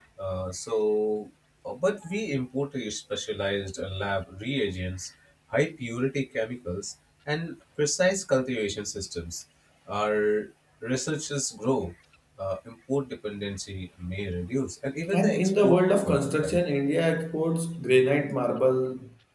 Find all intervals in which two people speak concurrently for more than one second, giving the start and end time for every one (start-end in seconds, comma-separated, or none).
15.1-16.6